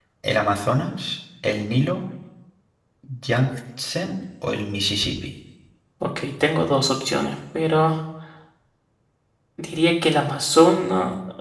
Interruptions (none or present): none